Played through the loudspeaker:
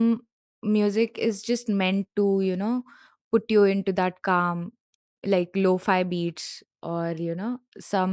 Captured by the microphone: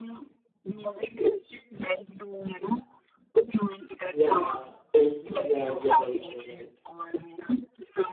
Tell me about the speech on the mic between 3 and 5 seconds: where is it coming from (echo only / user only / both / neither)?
both